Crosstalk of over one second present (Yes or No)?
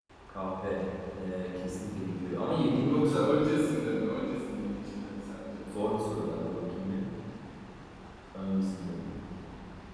No